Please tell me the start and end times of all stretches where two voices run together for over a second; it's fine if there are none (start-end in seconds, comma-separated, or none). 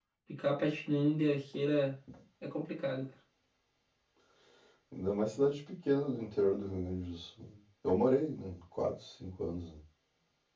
none